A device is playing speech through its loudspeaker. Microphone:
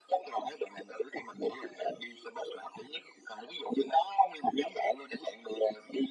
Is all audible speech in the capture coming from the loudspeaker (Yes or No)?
Yes